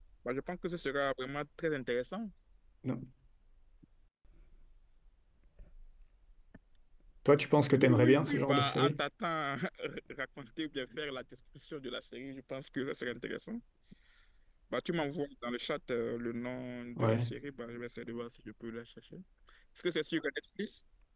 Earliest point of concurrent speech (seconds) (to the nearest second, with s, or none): 8 s